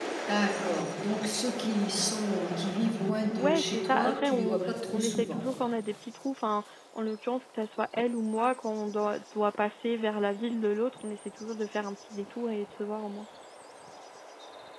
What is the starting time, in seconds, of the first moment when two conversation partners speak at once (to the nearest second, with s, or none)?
3 s